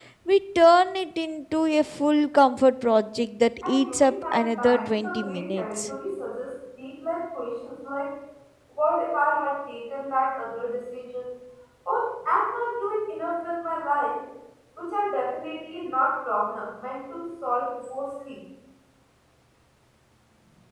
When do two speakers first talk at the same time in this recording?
3.6 s

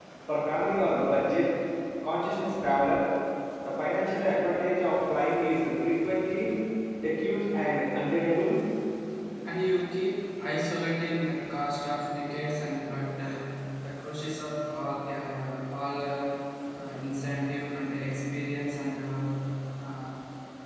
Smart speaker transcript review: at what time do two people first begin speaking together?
none

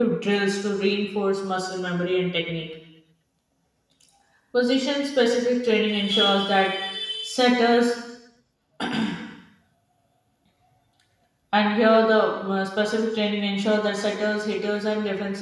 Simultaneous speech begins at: none

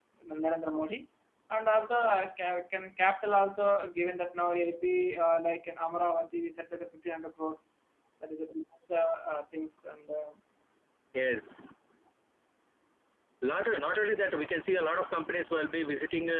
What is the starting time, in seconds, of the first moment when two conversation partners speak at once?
none

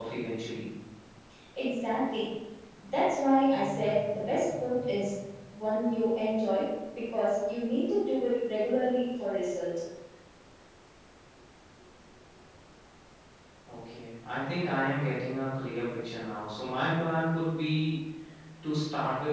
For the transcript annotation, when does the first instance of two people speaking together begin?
none

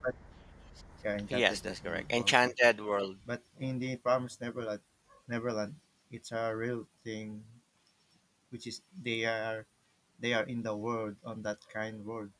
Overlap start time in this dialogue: 1.3 s

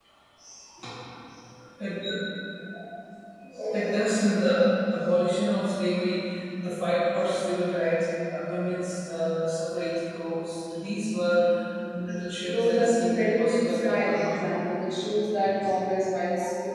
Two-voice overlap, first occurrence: 12.4 s

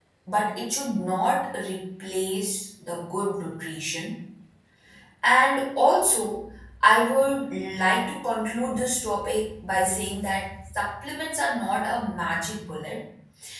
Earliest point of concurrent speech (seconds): none

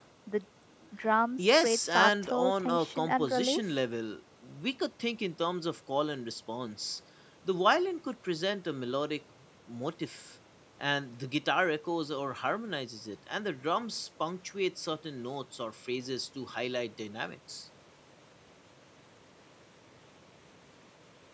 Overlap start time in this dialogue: 1.4 s

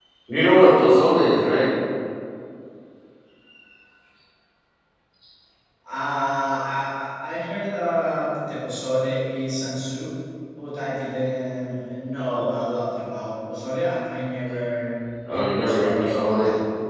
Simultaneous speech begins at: 15.2 s

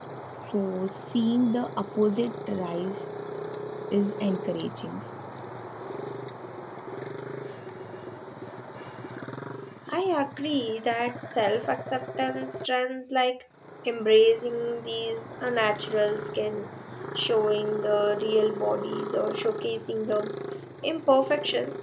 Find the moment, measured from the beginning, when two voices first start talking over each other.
none

